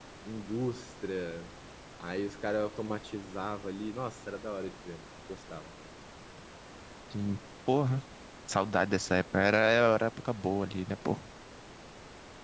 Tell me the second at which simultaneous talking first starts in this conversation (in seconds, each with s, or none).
none